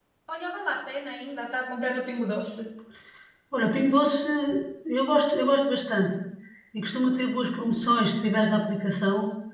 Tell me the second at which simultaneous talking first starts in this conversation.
none

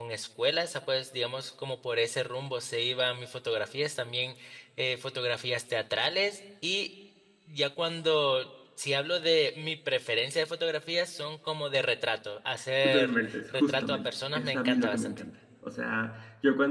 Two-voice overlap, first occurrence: 12.8 s

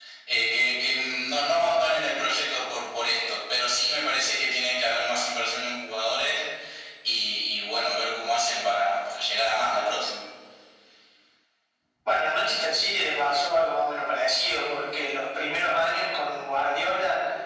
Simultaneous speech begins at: none

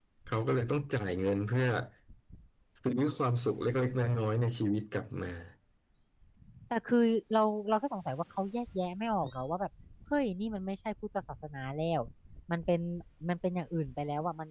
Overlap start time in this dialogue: none

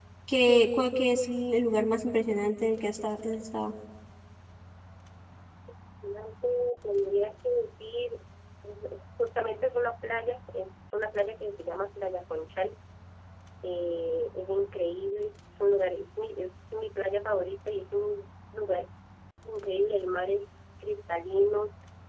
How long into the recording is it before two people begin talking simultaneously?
none

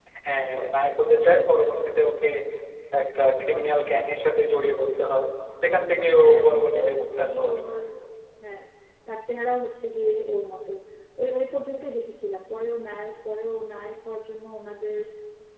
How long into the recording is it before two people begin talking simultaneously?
6.1 s

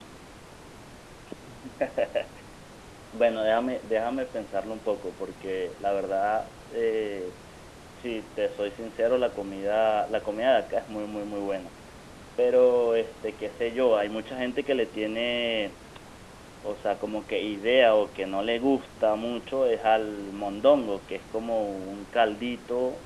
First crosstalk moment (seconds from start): none

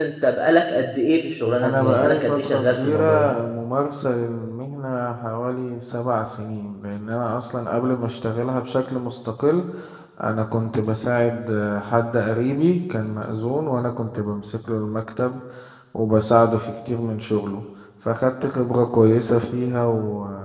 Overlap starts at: 1.6 s

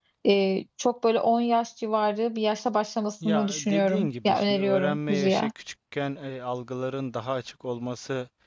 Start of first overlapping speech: 3.2 s

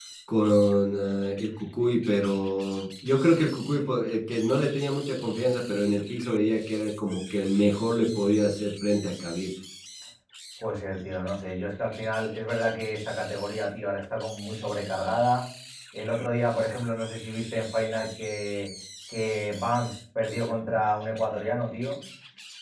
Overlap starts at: none

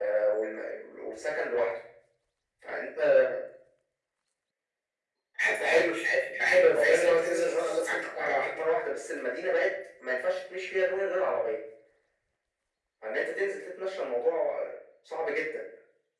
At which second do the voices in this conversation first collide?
6.7 s

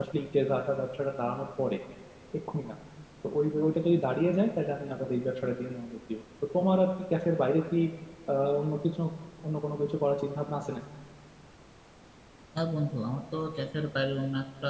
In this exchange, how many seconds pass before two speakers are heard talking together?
none

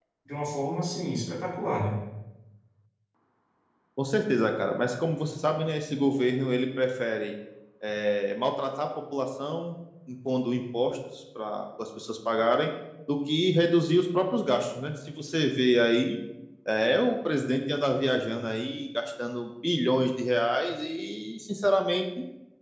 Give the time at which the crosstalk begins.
none

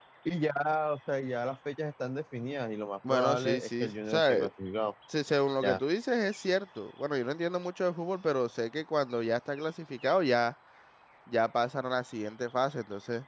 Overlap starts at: 3.0 s

